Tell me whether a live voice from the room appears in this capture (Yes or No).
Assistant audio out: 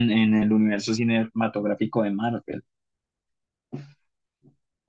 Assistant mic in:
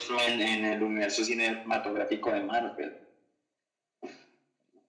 No